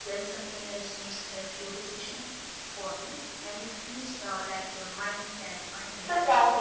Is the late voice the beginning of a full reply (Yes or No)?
Yes